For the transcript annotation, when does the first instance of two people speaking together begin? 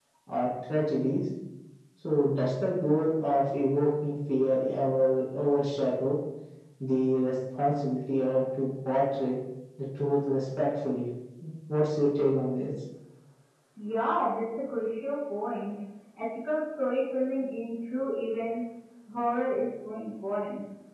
none

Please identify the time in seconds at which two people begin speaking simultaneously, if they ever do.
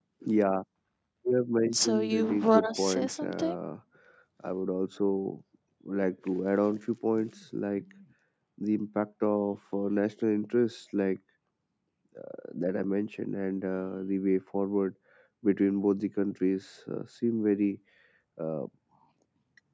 1.7 s

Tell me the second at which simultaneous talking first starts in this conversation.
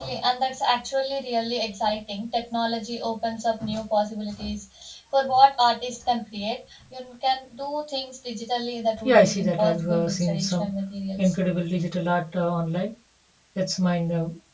9.0 s

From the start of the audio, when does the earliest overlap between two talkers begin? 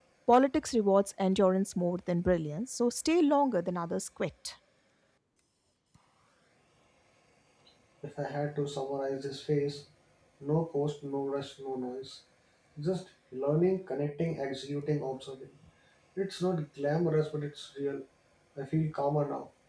none

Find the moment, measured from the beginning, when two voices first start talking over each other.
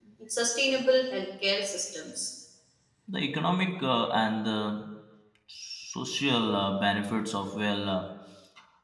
none

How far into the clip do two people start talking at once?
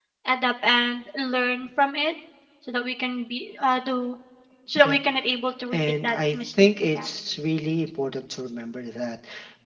5.7 s

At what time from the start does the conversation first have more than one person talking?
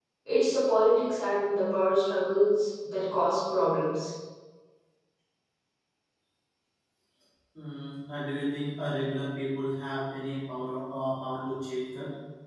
none

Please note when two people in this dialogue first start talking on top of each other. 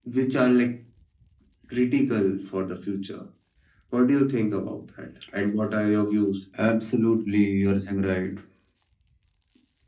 none

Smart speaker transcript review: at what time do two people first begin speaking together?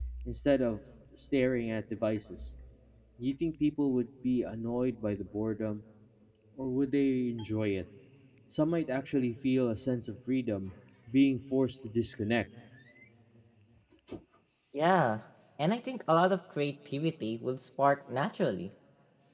none

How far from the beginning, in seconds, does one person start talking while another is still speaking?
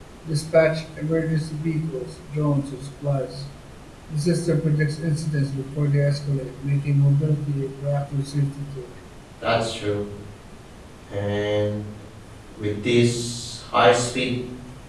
none

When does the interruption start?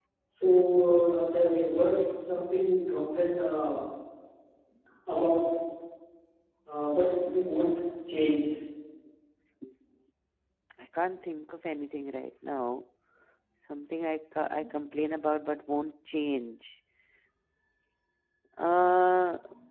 none

